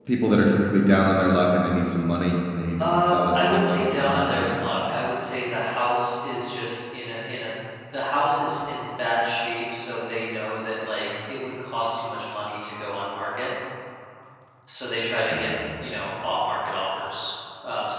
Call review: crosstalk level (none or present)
present